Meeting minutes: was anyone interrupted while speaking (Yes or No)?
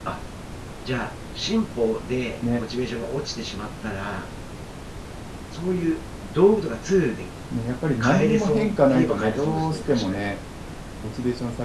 Yes